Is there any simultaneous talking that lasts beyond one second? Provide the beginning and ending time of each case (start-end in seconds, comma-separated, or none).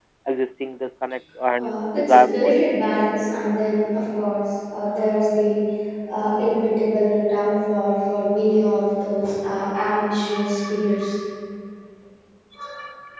1.6-2.8